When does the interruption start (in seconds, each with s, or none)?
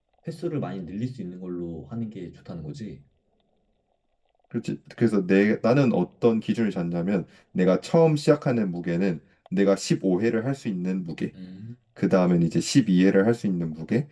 none